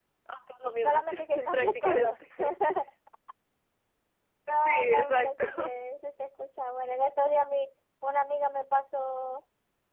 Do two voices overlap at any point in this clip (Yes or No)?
Yes